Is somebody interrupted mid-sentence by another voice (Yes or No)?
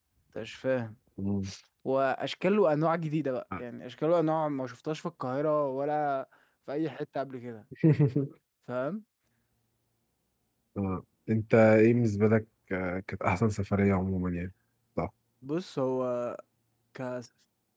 No